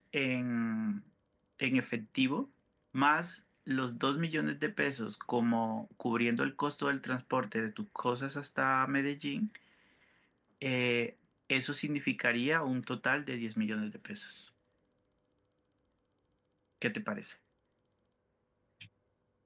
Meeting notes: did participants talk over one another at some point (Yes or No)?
No